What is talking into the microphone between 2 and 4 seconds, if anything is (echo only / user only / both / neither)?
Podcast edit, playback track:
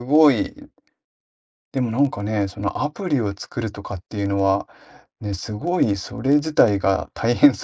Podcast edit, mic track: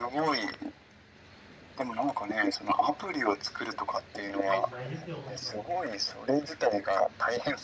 echo only